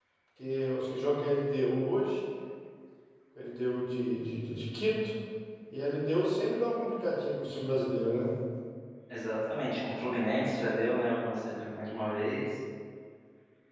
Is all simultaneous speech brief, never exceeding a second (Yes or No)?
Yes